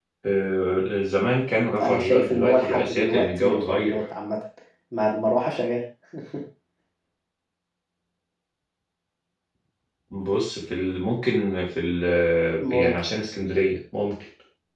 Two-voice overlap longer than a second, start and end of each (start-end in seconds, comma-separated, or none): 1.8-4.0